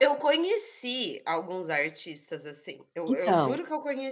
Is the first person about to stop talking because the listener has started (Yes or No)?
No